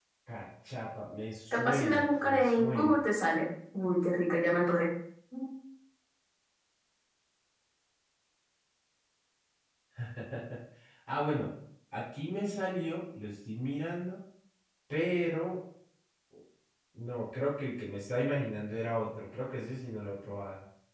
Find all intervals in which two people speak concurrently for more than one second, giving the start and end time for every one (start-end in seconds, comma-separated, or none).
1.5-3.0